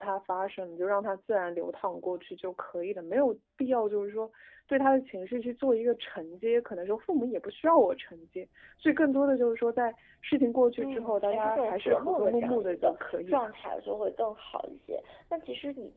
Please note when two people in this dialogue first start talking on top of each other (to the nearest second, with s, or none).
11 s